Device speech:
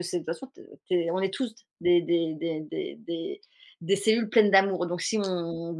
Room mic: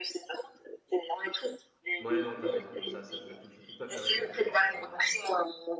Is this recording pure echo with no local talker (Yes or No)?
No